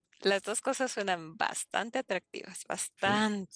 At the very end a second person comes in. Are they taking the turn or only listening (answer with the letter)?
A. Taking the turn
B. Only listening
A